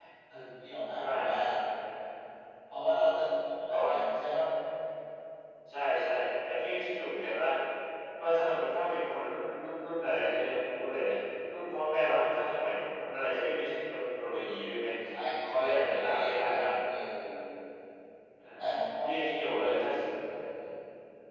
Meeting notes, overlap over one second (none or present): present